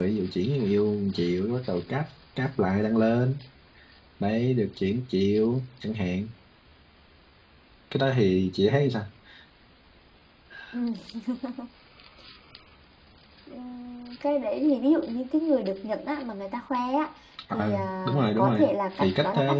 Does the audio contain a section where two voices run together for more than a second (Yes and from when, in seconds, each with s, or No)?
Yes, from 17.5 s